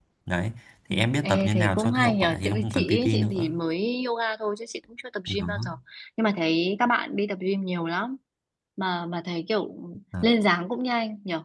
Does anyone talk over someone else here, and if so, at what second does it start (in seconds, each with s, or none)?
0.9 s